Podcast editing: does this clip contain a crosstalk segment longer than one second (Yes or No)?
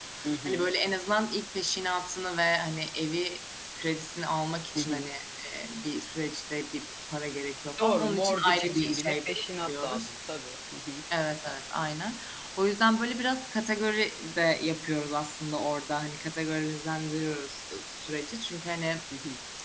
Yes